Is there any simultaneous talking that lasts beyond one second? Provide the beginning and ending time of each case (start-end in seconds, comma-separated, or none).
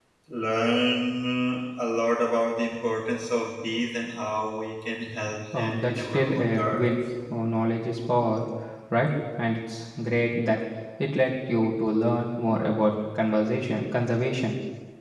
5.6-6.9